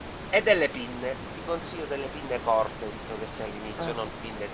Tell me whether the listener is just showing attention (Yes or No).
Yes